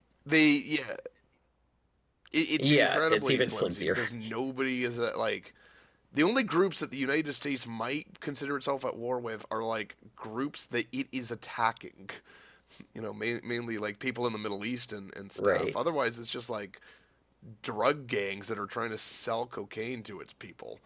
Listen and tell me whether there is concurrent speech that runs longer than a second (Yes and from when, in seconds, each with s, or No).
Yes, from 2.6 s